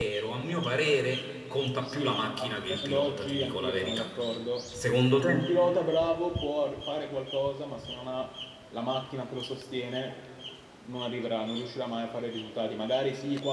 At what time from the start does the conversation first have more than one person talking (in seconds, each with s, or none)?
1.9 s